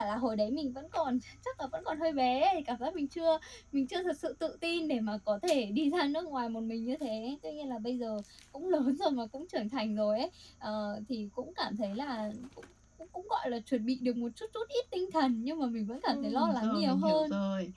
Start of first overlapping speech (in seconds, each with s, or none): 16.1 s